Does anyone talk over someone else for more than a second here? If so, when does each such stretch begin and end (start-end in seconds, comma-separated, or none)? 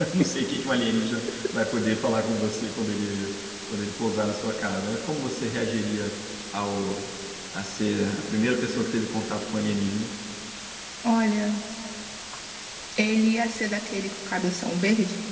none